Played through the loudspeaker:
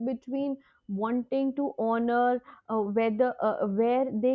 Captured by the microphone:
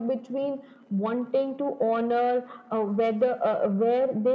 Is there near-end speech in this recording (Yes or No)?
No